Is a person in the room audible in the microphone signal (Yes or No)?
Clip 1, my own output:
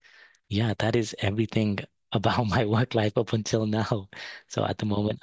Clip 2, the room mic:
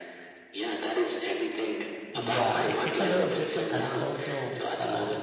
Yes